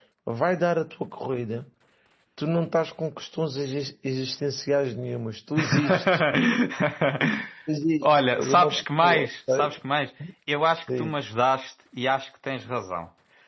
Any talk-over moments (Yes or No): Yes